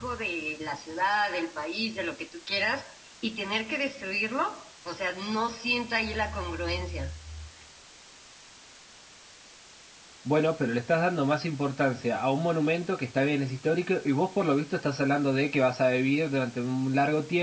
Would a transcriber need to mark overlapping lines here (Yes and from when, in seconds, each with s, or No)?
No